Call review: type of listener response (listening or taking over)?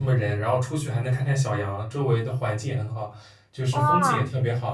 listening